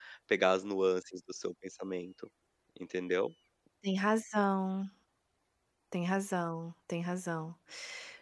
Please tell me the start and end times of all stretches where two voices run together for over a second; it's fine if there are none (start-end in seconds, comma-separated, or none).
none